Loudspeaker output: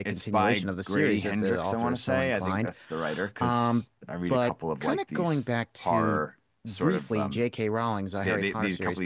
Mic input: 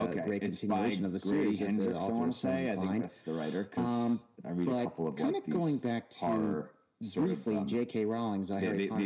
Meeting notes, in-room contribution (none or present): none